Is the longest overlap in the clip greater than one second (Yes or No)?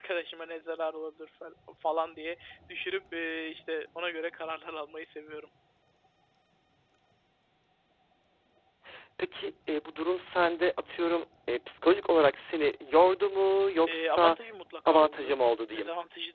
No